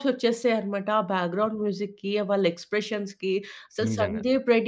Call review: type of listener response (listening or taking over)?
listening